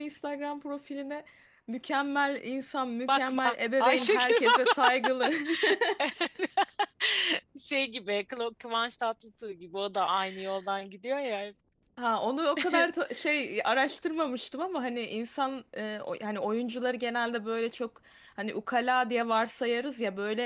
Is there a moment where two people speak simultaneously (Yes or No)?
Yes